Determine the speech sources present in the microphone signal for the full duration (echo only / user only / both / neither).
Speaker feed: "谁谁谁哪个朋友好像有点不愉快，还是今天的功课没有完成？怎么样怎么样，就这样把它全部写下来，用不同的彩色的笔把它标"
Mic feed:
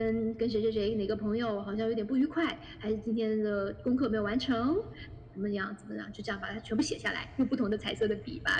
echo only